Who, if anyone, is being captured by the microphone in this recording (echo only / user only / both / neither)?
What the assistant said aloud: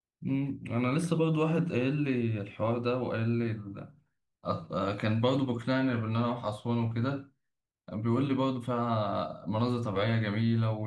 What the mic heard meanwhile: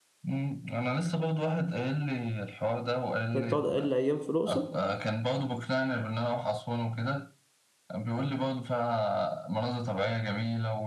both